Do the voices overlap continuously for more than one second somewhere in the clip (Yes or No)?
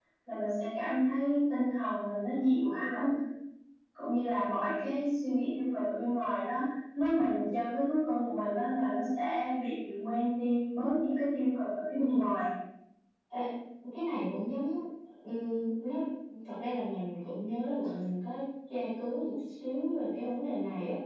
No